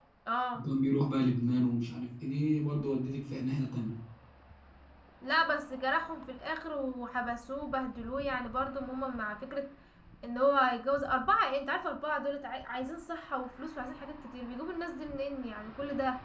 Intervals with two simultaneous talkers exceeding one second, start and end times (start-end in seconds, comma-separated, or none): none